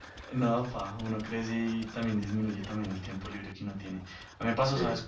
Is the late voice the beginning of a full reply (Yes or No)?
No